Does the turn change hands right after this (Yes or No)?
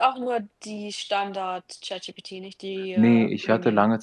Yes